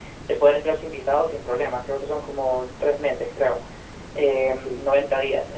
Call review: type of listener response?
listening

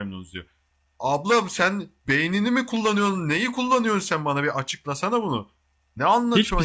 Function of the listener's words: taking over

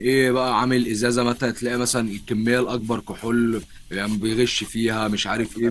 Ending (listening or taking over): taking over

